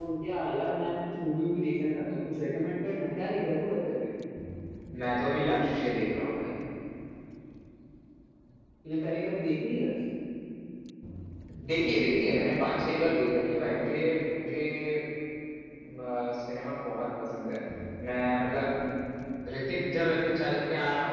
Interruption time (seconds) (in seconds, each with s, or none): none